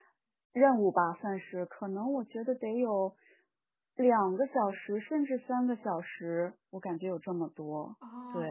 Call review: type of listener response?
taking over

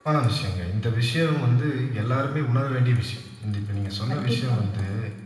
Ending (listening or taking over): listening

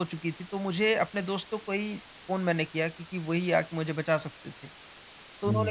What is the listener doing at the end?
listening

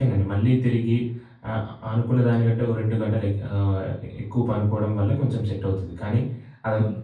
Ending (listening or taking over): listening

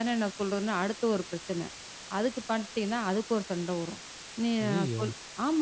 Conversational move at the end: listening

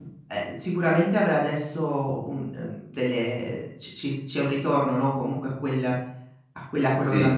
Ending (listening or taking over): listening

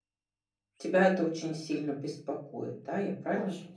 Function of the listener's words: taking over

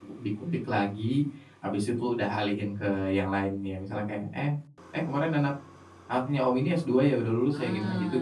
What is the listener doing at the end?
taking over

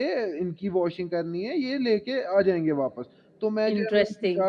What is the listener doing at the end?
listening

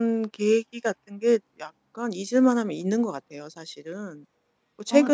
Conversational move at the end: listening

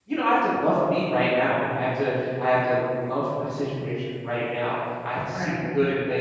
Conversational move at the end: listening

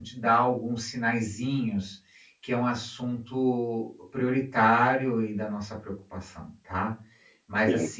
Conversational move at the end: listening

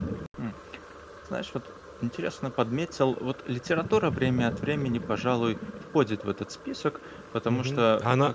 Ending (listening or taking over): taking over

